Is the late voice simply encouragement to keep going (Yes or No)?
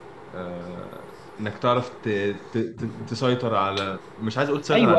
No